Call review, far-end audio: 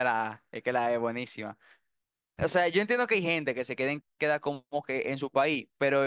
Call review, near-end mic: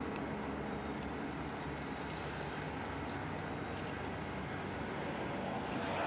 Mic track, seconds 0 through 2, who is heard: neither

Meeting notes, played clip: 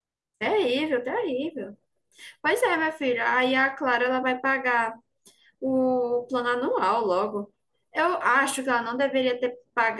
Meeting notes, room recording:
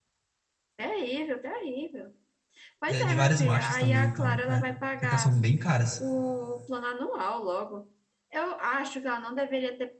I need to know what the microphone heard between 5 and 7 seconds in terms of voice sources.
both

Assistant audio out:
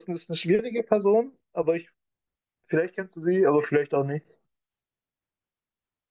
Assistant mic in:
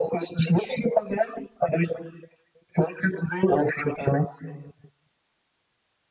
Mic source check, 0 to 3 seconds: echo only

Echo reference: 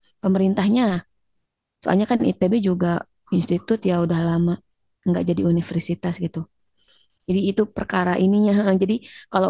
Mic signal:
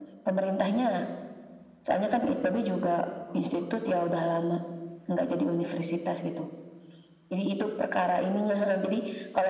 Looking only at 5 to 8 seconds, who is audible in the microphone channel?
echo only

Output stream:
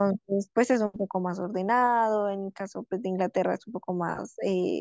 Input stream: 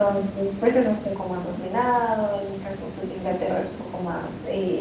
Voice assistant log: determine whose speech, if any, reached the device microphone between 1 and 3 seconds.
echo only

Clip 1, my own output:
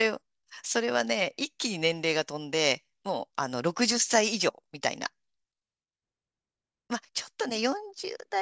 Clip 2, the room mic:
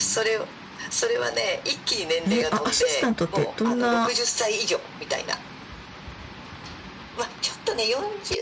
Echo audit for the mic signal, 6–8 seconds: echo only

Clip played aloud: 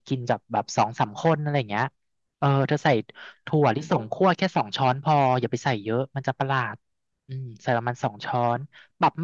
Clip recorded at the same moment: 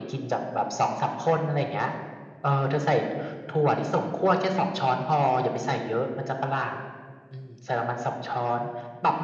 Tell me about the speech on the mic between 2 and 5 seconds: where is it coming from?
echo only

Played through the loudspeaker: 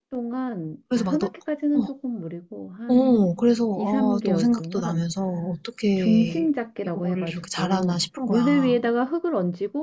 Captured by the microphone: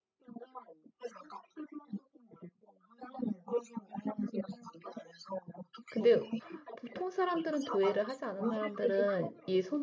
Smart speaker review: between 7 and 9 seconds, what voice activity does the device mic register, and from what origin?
both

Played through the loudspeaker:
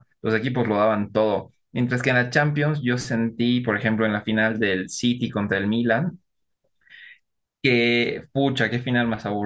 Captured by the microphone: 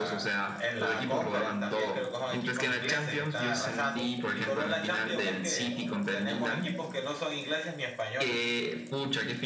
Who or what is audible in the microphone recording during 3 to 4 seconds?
both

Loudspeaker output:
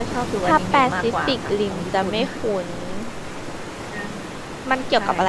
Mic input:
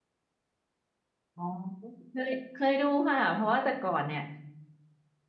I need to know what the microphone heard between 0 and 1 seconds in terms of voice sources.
neither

